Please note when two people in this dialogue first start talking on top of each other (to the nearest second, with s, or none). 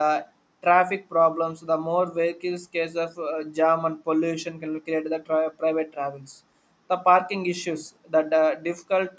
none